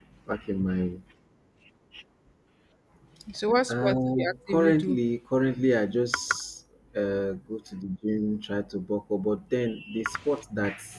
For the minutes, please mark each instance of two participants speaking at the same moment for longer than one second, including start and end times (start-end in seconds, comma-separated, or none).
3.7-5.0